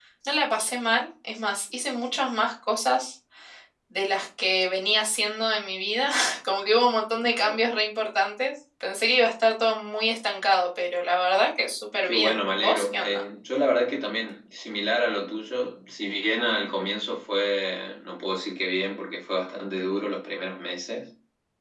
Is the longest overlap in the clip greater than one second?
Yes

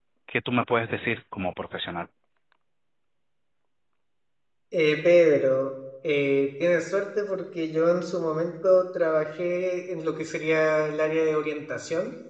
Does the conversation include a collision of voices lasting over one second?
No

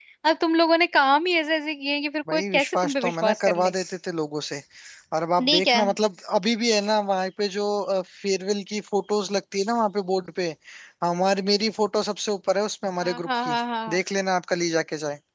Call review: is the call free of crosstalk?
No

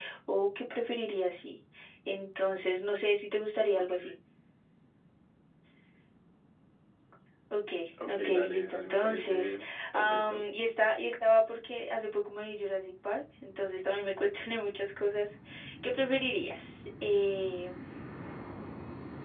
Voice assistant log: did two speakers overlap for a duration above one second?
Yes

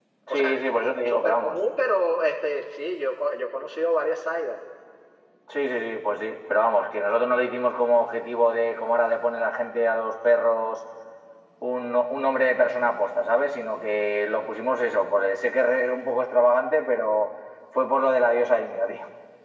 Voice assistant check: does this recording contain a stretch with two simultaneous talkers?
Yes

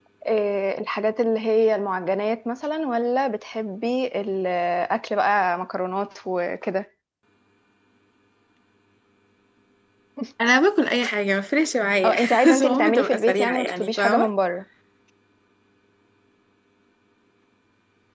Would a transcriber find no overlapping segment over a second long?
No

